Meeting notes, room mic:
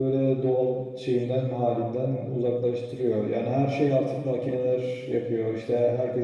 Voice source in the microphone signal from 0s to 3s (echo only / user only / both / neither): user only